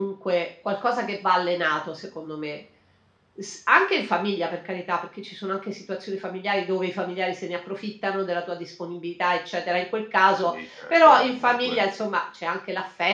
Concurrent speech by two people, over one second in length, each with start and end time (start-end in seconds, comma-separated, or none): 10.4-11.8